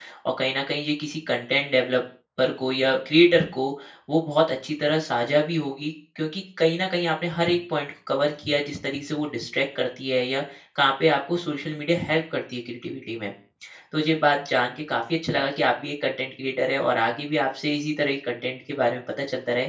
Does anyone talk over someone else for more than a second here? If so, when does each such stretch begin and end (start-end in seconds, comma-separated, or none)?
none